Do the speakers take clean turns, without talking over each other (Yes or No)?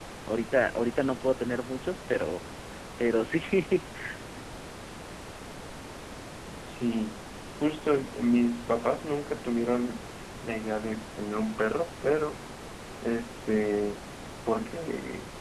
Yes